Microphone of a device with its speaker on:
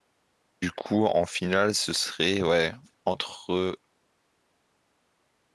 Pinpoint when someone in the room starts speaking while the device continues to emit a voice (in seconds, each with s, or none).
0.6 s